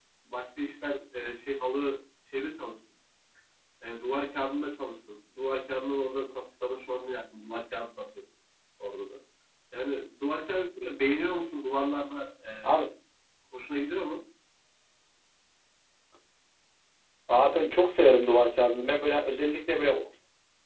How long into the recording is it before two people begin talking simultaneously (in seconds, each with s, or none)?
none